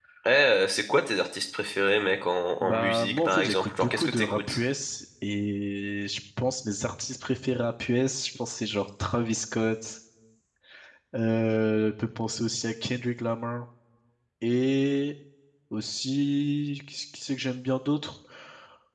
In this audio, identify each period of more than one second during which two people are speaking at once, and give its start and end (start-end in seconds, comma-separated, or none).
2.6-4.6